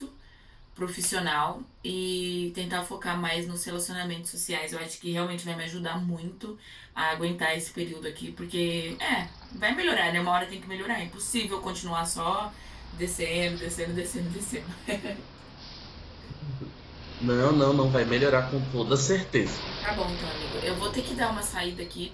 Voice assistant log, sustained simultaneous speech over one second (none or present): none